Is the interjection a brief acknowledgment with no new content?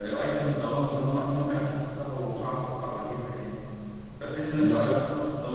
Yes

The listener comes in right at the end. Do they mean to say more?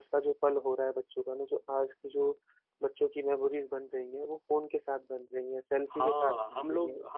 Yes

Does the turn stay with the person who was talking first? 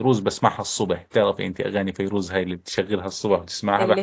No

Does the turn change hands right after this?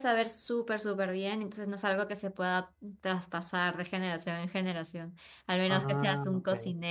No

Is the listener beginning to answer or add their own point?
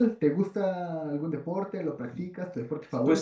Yes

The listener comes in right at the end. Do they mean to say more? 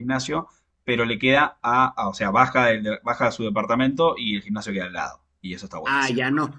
Yes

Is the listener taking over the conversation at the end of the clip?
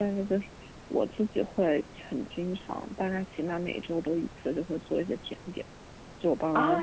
Yes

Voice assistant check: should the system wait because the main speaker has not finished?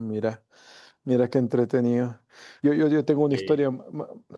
Yes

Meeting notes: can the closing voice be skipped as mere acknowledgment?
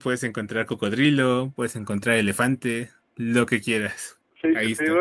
No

